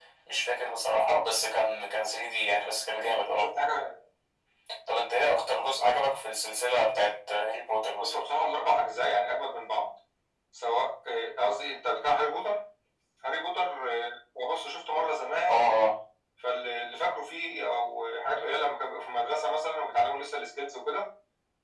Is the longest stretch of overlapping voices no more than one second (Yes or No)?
Yes